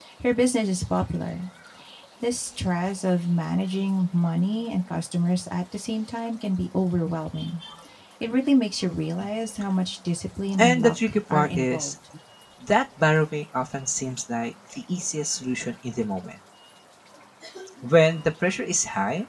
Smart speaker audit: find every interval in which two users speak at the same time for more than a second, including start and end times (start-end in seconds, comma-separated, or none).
10.6-11.9